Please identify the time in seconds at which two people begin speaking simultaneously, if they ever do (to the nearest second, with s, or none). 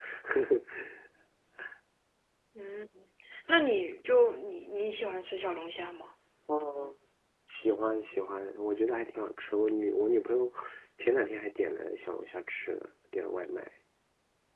none